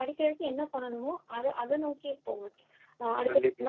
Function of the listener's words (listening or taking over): listening